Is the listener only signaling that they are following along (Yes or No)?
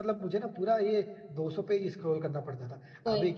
Yes